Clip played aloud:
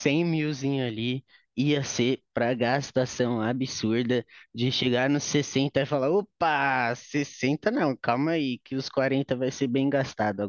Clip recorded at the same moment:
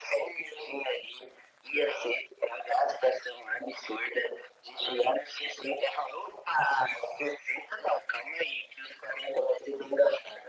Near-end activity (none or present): none